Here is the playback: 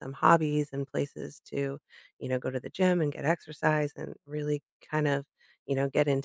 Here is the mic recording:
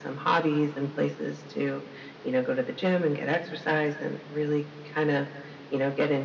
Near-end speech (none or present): none